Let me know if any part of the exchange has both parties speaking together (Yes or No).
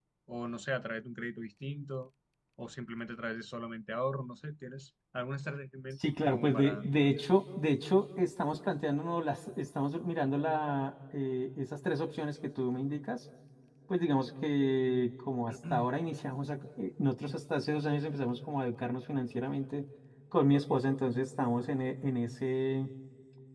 Yes